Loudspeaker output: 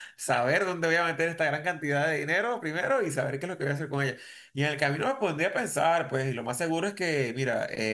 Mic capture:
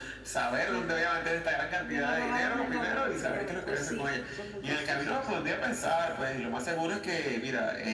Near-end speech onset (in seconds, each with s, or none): 0.7 s